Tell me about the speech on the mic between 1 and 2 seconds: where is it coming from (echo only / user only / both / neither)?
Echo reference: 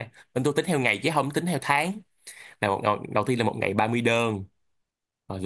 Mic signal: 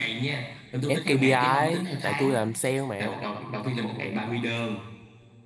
both